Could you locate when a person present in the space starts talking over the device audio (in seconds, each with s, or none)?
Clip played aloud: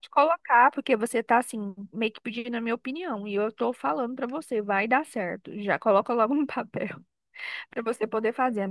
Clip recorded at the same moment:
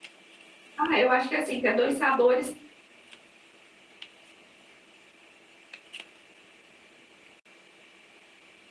0.8 s